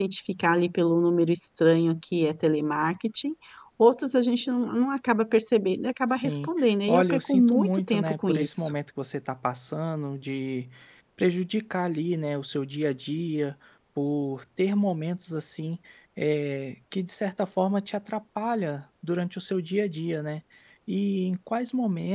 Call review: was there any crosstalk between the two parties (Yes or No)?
Yes